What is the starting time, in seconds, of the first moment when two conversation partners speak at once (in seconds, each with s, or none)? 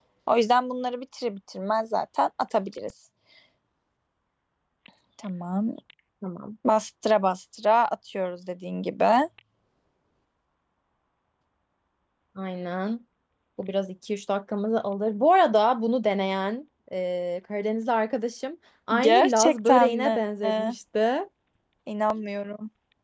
19.0 s